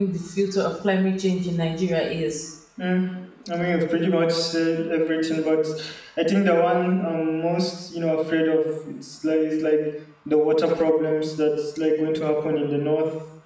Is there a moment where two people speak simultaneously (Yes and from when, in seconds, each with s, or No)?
No